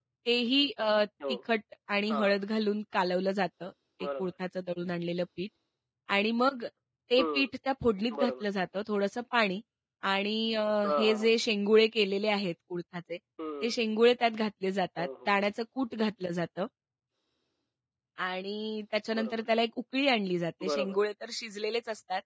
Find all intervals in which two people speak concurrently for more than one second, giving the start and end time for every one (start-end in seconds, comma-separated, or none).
none